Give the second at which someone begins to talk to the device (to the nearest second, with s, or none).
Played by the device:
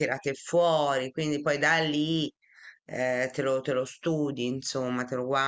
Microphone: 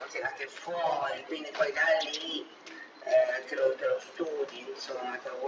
none